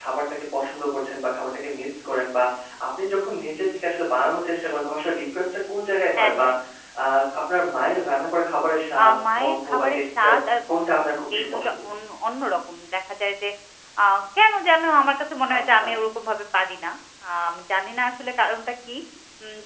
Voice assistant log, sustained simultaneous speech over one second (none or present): present